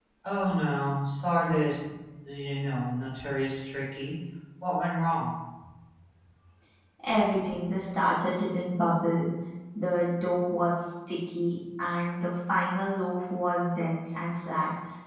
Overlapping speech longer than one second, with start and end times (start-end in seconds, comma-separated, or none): none